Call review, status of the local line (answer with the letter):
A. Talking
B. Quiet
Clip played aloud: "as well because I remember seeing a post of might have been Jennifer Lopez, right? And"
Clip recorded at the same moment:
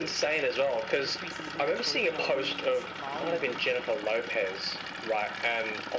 A